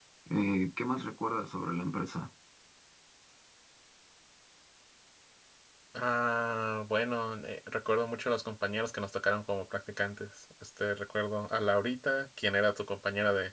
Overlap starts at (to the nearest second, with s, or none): none